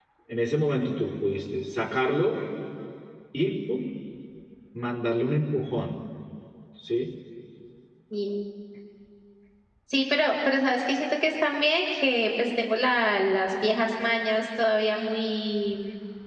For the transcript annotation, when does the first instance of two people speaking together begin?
none

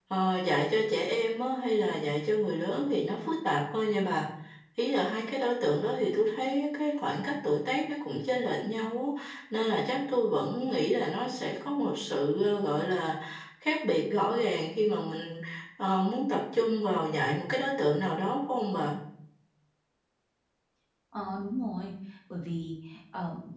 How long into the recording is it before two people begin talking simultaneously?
none

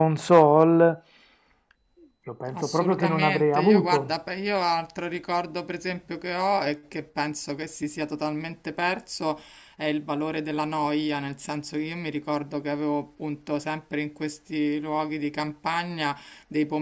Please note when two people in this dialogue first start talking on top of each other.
2.6 s

